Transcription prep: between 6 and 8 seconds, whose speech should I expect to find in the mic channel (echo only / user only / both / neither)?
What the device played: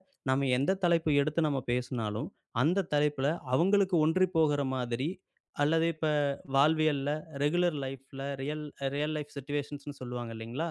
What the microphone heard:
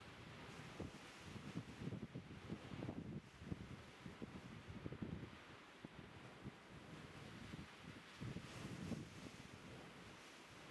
neither